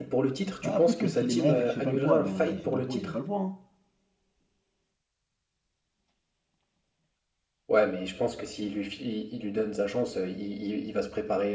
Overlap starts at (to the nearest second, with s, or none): 1 s